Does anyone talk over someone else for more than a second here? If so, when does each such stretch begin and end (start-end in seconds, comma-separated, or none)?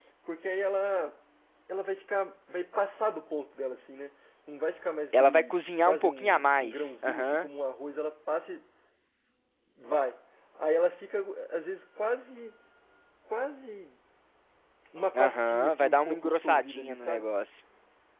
5.2-7.5, 15.2-17.2